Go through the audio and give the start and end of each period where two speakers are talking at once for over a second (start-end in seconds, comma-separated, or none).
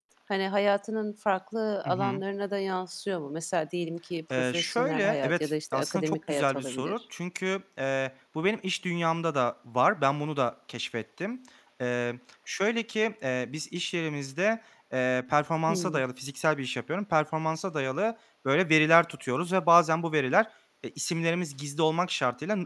4.3-7.0